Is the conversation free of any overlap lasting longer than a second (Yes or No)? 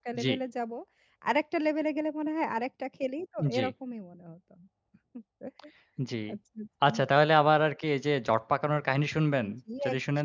Yes